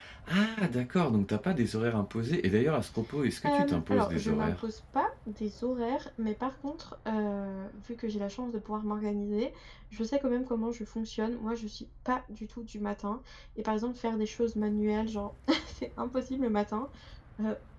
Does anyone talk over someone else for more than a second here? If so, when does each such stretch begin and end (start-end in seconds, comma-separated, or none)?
3.4-4.6